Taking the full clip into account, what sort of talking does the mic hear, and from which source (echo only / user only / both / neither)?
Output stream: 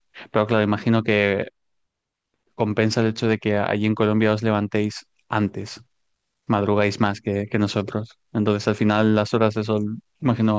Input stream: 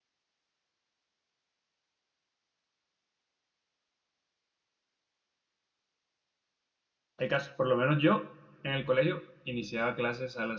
user only